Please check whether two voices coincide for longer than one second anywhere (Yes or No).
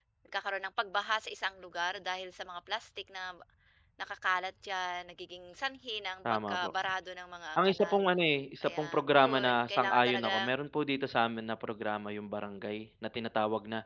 Yes